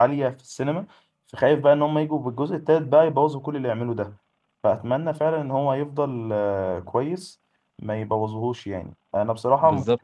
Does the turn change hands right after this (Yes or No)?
No